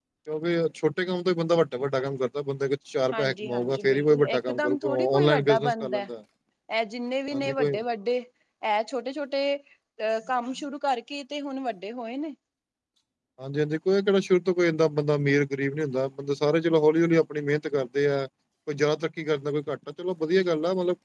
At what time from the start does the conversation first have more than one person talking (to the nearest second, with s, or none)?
3 s